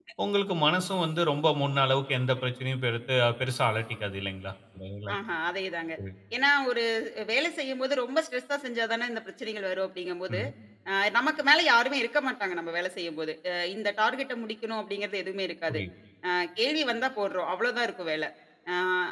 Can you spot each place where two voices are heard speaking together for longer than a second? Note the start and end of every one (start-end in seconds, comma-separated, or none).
none